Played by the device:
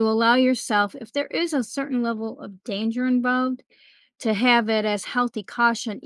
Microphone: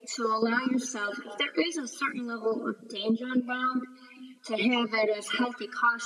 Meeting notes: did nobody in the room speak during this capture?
Yes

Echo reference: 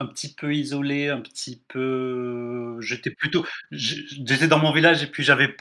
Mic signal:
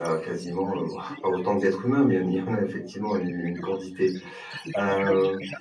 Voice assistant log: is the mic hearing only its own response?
No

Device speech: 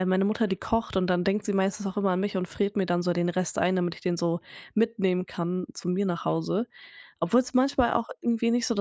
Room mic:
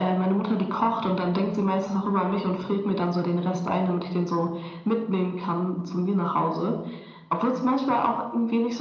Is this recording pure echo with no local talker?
Yes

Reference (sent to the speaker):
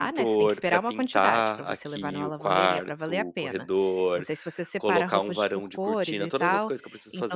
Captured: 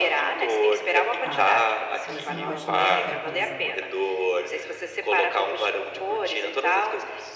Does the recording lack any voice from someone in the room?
No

